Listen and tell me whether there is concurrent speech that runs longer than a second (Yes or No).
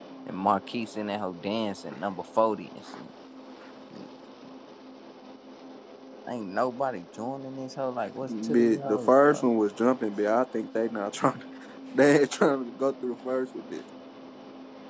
Yes